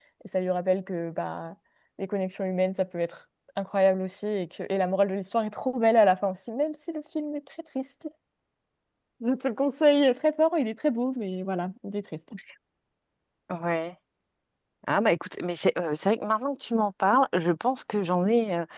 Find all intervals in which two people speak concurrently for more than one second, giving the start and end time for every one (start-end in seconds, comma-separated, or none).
none